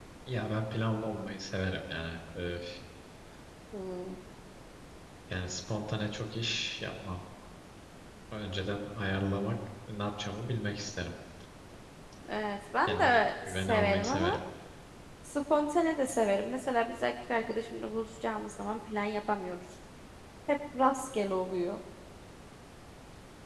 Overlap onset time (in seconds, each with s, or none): 12.9 s